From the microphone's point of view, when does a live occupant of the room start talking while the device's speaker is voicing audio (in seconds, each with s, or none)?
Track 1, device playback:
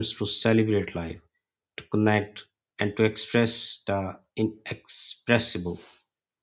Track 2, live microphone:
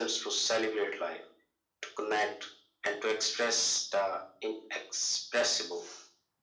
none